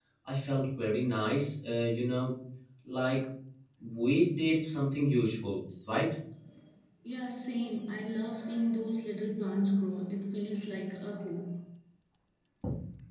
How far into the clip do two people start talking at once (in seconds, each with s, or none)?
none